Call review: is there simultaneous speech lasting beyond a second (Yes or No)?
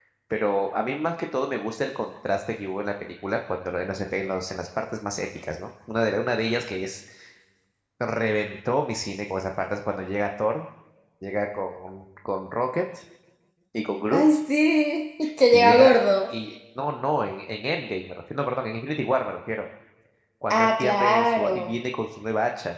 Yes